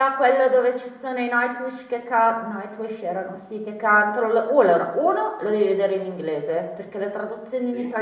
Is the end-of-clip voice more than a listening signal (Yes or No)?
No